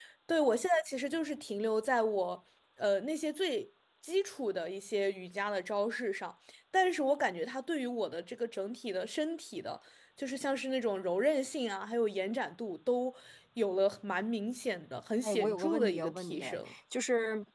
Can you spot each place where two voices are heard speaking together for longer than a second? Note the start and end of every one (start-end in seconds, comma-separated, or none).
15.2-16.4